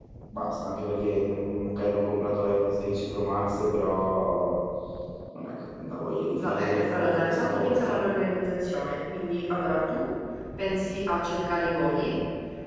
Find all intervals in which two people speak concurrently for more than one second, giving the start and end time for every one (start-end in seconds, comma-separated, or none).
6.3-7.9